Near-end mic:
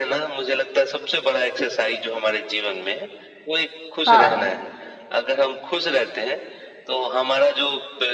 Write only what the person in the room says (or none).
हाँ।